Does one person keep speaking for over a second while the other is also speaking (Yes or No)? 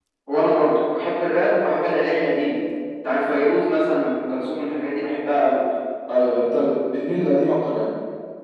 No